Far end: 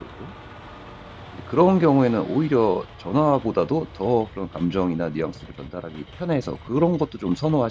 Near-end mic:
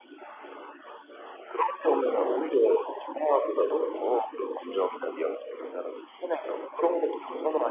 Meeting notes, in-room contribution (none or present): present